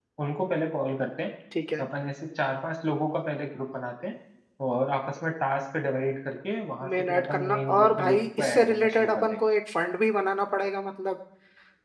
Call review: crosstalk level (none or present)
present